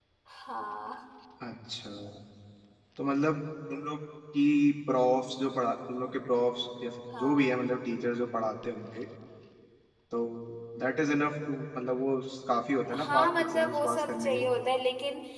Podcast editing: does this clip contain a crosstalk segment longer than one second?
Yes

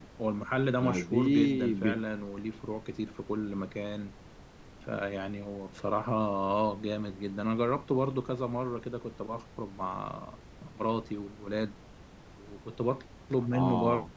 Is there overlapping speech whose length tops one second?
Yes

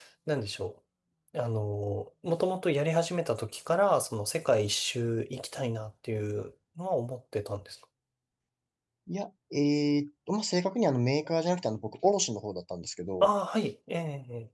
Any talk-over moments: No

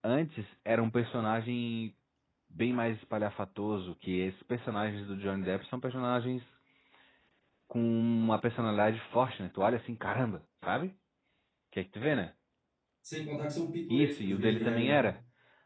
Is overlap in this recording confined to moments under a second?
No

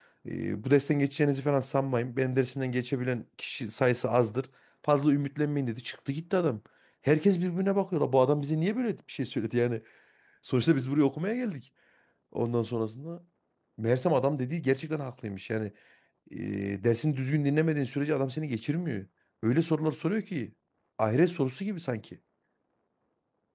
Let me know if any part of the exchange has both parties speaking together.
No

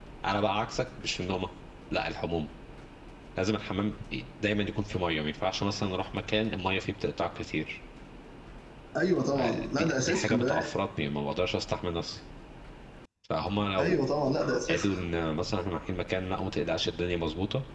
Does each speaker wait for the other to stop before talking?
No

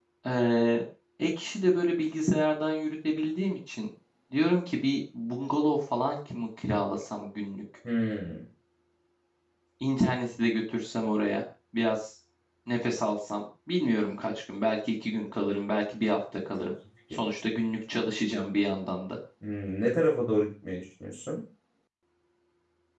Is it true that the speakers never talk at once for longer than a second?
Yes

